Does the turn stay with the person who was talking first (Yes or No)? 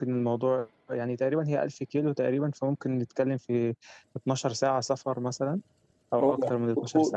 No